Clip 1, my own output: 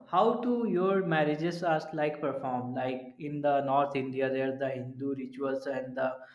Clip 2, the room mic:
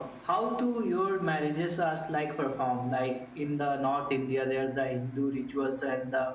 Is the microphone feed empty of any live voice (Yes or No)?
Yes